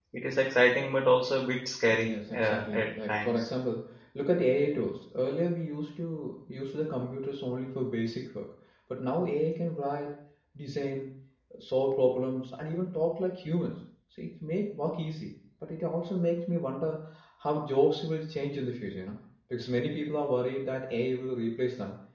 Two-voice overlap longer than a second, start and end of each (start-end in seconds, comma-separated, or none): 1.9-3.5